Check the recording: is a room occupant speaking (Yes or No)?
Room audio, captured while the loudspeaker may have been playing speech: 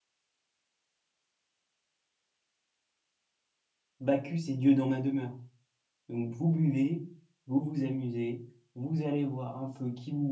Yes